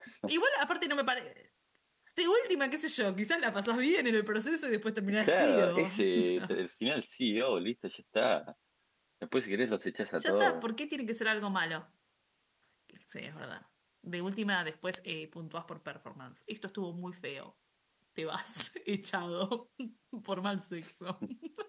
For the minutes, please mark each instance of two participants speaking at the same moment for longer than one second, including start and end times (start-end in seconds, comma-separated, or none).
5.2-6.6